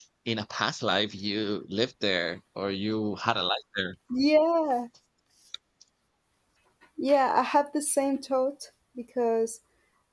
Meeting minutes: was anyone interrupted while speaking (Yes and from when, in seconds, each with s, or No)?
No